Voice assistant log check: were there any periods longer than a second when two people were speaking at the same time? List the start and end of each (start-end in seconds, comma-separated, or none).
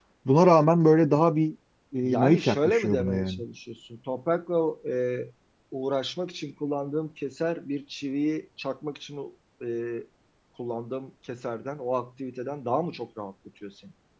2.0-3.4